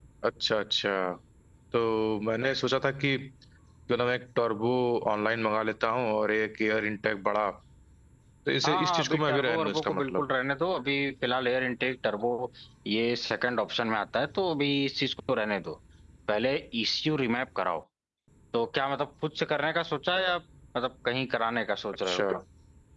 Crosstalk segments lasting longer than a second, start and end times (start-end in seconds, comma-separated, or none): 8.7-10.2